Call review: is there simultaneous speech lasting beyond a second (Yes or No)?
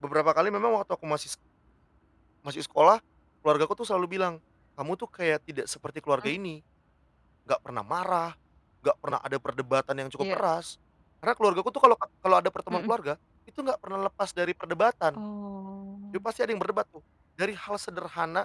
No